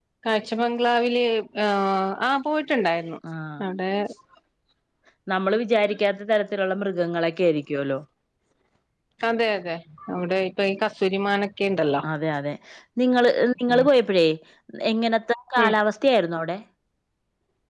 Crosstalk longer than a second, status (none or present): none